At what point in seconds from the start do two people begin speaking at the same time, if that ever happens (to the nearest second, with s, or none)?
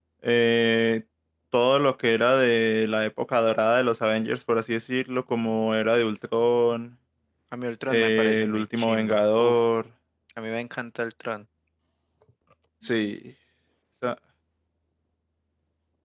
8 s